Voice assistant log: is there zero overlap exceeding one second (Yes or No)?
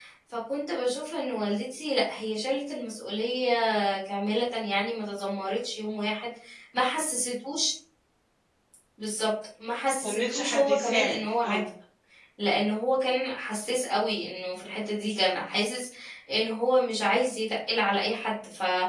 No